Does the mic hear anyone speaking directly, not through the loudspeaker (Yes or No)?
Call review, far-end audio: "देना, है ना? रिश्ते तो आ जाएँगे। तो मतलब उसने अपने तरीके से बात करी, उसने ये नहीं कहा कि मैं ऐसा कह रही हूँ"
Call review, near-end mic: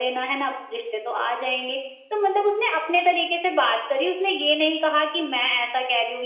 No